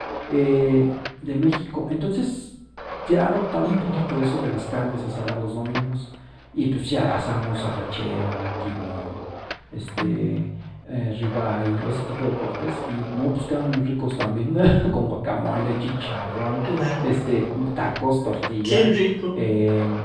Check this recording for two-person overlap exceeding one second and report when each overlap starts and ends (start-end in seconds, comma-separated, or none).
none